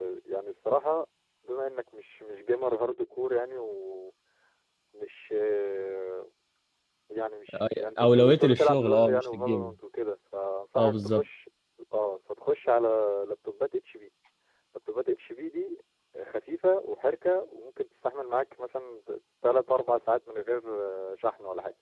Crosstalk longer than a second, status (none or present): present